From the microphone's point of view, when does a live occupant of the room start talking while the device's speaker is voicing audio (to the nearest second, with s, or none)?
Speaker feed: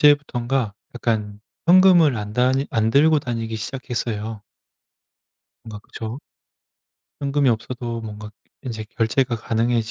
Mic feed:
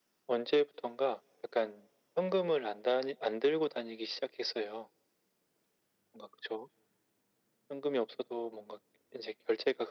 none